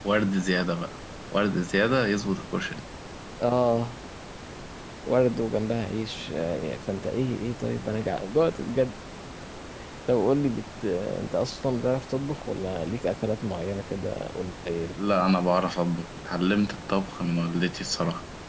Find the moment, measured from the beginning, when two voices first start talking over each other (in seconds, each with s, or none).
none